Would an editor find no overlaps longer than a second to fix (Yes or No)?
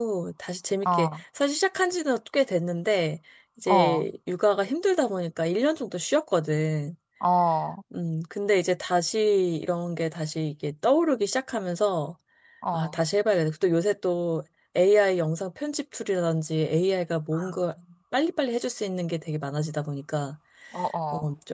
Yes